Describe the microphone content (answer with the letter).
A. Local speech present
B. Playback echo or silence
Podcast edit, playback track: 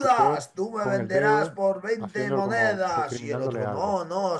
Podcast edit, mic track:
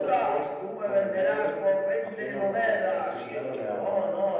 B